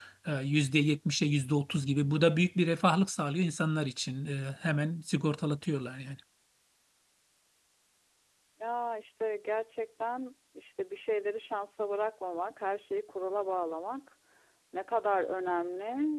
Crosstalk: none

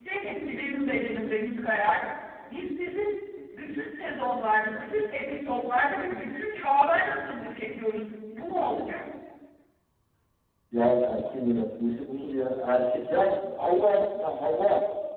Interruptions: none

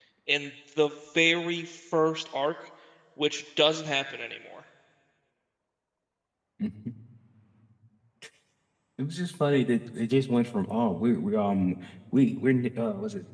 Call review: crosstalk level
none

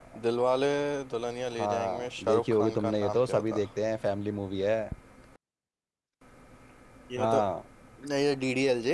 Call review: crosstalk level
present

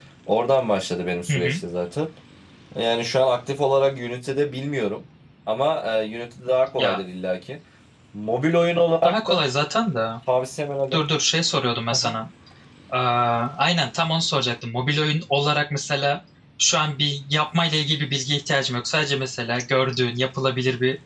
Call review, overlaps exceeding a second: none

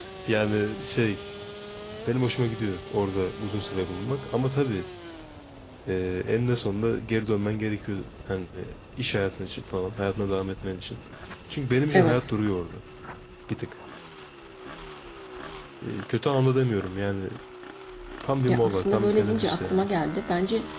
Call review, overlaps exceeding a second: present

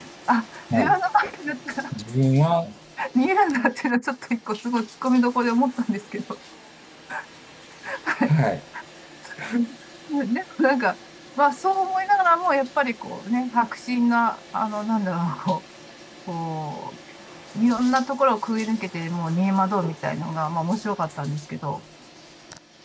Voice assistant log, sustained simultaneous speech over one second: none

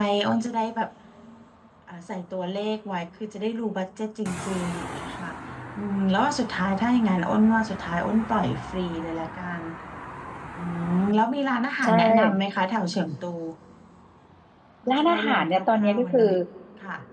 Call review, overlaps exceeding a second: present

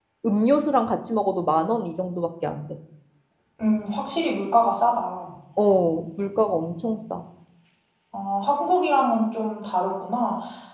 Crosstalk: none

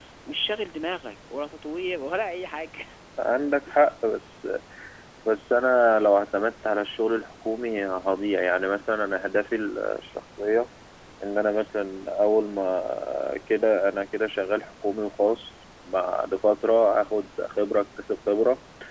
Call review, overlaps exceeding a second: none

